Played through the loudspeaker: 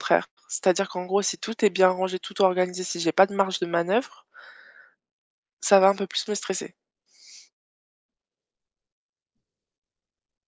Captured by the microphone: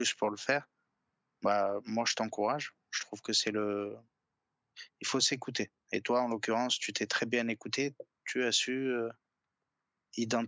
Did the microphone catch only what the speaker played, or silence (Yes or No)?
No